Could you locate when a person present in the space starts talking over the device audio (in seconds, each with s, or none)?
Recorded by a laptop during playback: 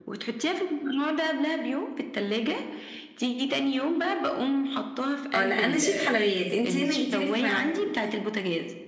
5.3 s